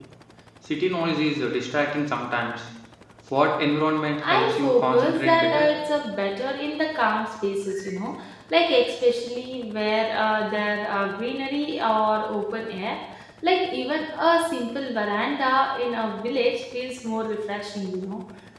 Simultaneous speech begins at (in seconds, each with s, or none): 4.2 s